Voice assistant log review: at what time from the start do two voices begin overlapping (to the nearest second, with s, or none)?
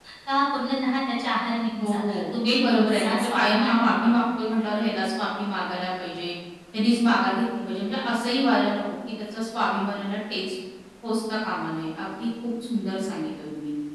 2 s